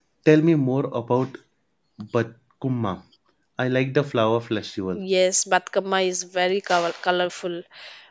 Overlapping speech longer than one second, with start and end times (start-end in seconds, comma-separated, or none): none